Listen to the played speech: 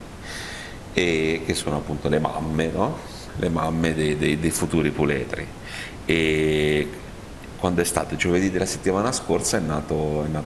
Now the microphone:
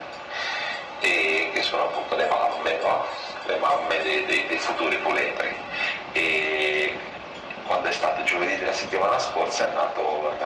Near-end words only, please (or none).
none